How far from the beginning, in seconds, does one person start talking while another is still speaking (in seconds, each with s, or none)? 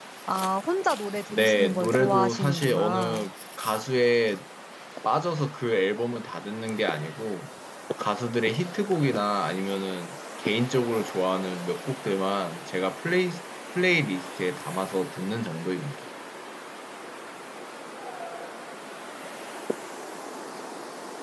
1.3 s